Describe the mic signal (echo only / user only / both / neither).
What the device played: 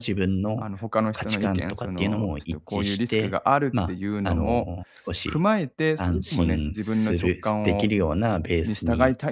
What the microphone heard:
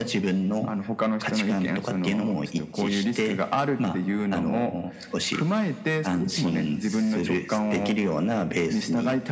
echo only